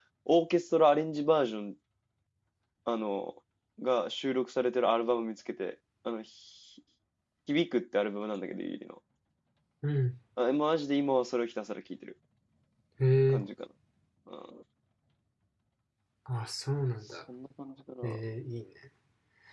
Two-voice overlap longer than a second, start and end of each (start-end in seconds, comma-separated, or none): none